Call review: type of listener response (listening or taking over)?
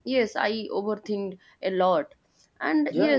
listening